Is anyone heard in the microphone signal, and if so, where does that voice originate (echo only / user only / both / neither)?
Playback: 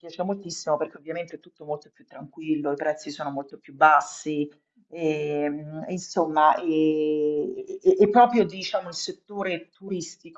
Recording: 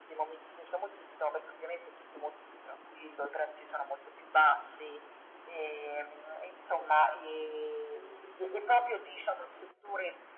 echo only